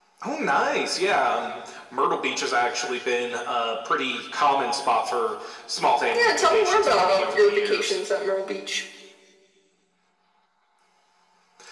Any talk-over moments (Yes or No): Yes